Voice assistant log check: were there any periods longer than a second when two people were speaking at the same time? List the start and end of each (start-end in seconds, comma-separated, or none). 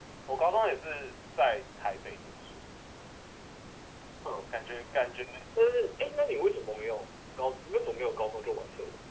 none